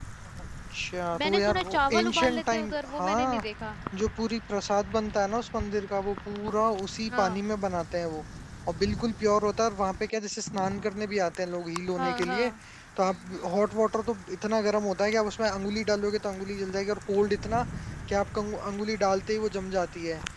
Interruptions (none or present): present